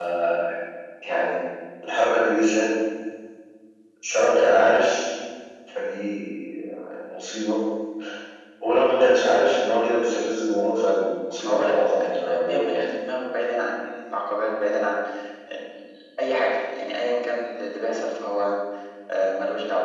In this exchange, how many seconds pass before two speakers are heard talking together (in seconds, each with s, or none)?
11.4 s